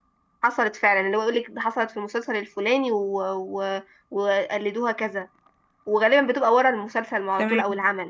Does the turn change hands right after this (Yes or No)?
No